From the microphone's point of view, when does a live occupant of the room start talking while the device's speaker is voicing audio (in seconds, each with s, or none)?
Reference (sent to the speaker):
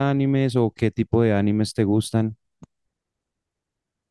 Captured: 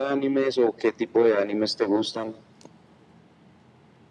none